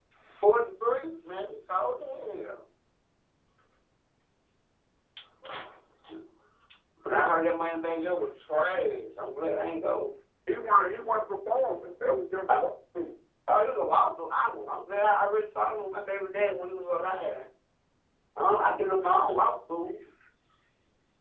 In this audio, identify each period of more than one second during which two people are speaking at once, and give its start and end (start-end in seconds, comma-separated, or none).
none